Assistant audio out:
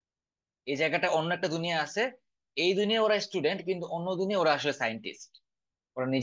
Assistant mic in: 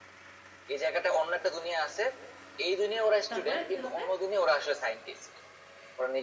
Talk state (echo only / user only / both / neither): both